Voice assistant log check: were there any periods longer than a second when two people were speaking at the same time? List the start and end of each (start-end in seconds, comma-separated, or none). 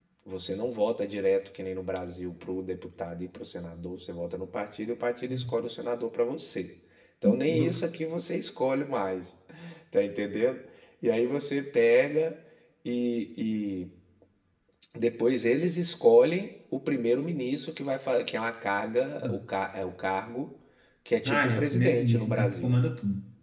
21.2-22.7